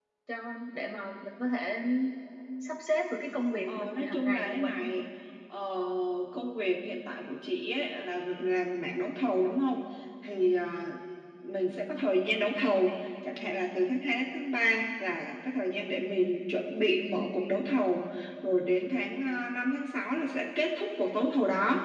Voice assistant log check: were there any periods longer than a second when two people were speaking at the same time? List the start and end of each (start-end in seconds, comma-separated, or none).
3.8-5.0